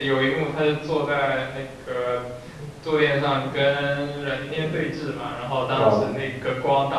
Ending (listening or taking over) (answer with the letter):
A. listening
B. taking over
A